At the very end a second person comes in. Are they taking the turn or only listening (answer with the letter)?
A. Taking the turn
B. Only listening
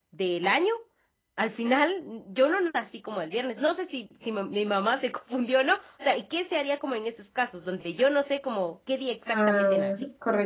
A